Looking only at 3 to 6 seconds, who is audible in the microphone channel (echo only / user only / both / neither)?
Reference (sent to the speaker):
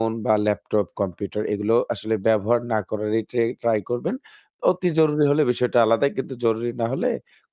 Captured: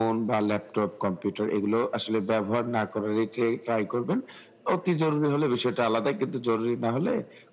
echo only